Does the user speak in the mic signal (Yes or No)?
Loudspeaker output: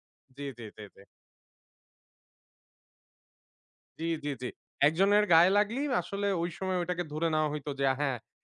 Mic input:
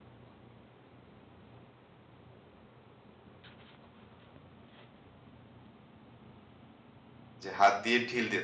Yes